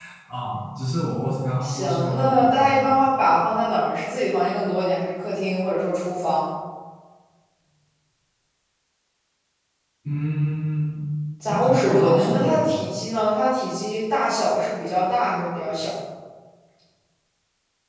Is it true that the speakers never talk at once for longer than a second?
No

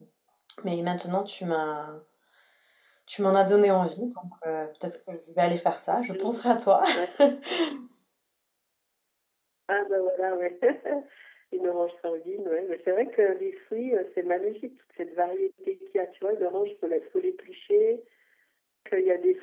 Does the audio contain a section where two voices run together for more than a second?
No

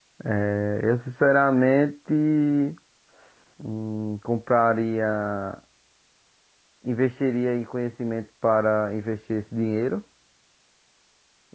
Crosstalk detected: No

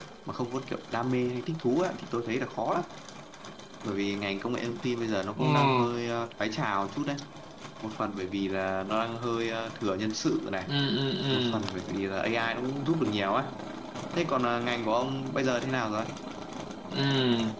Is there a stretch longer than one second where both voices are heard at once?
No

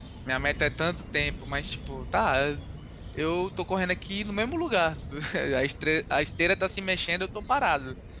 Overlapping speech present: No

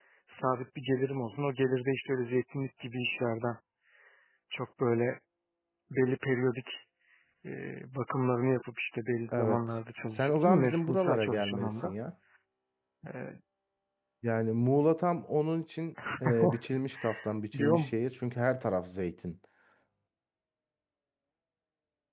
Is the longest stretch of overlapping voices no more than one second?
No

